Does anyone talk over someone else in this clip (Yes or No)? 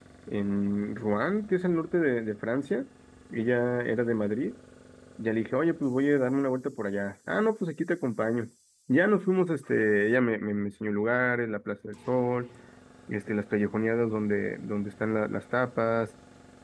No